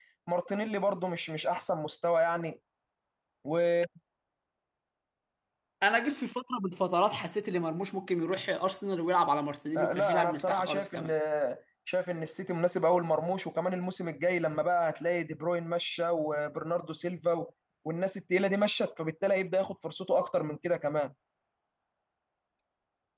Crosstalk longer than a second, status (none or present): present